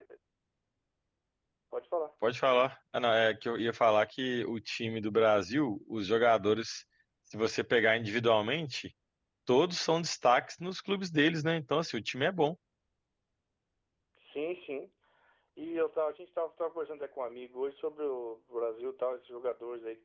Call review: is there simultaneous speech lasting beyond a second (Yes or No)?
No